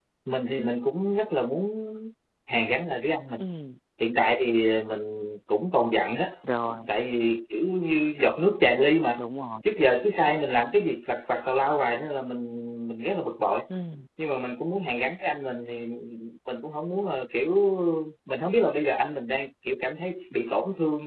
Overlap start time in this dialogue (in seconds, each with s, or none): none